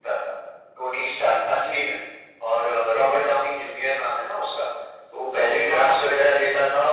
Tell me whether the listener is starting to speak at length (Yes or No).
No